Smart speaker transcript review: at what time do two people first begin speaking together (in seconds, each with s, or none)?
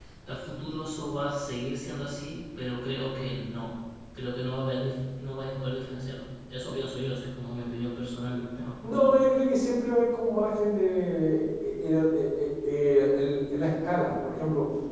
none